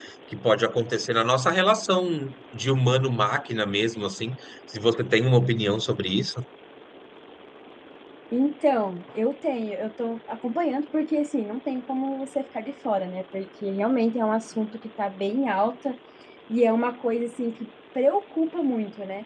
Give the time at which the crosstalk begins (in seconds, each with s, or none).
none